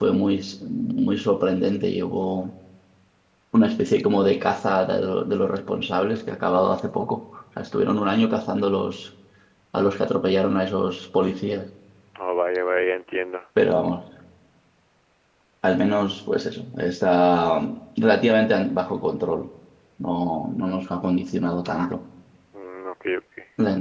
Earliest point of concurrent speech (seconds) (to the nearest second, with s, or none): none